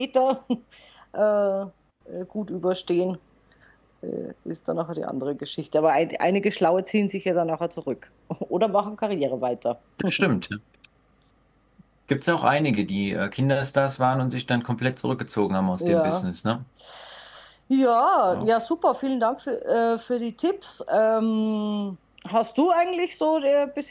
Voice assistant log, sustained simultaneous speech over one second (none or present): none